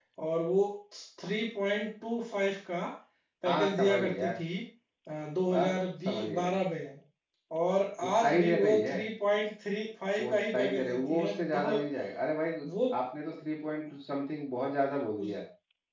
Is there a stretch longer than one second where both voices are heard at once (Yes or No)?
Yes